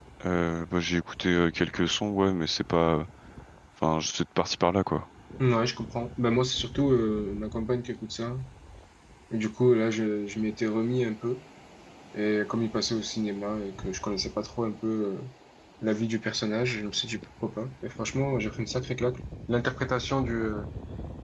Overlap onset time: none

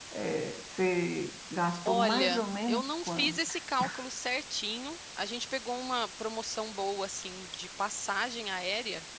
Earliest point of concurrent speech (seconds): 1.9 s

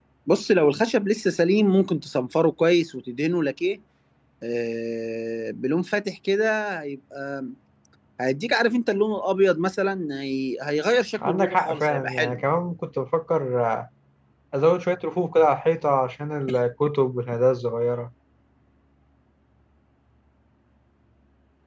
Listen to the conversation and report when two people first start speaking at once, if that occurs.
11.2 s

